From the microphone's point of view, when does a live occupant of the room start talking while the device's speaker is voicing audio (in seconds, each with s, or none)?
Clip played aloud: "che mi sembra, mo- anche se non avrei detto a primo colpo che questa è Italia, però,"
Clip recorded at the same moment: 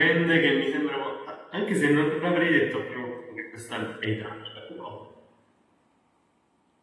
none